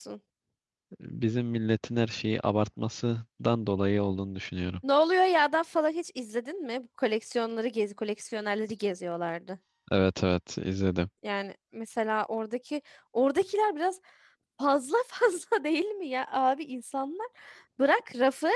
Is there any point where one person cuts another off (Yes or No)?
No